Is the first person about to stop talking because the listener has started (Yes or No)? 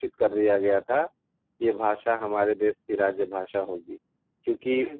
No